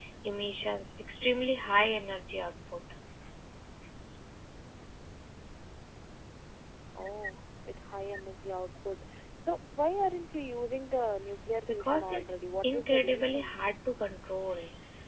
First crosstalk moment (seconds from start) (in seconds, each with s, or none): 11.7 s